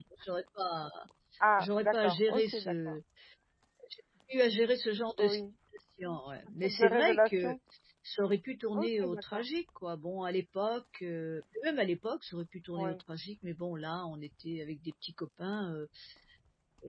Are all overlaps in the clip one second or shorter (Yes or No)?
No